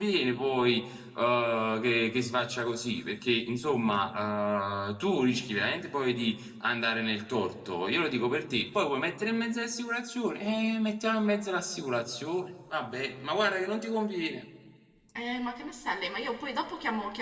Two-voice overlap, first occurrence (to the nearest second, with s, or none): none